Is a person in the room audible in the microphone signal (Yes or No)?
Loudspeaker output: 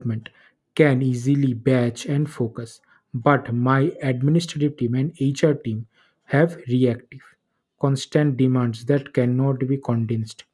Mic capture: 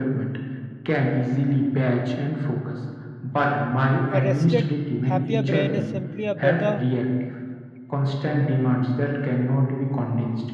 Yes